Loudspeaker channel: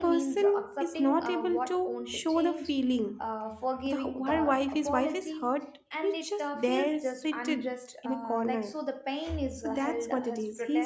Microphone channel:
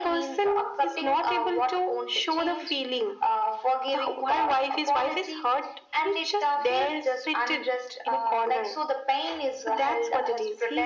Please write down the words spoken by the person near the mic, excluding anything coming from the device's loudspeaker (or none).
none